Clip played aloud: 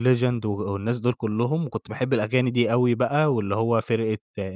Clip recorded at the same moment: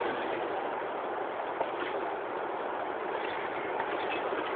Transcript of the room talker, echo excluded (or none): none